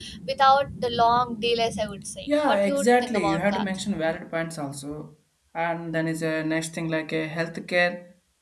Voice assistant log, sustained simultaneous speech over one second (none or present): present